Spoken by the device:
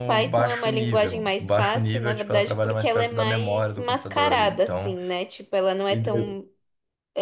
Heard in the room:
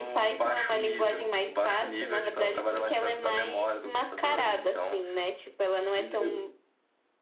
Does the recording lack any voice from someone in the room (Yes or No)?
Yes